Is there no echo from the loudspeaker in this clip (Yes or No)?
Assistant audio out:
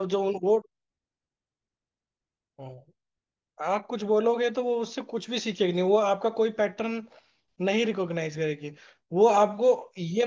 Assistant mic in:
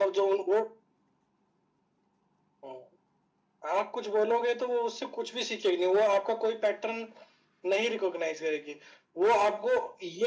No